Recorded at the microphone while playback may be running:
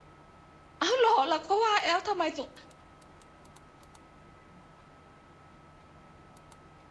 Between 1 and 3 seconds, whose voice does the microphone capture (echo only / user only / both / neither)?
user only